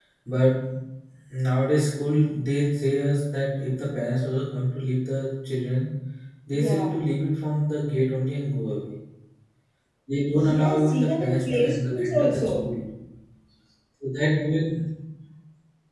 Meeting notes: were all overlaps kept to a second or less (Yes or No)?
No